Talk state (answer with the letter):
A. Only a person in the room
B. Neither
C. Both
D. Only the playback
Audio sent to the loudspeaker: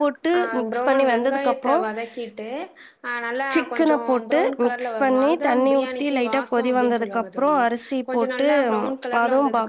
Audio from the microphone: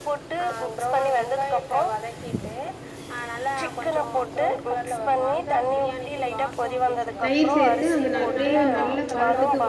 C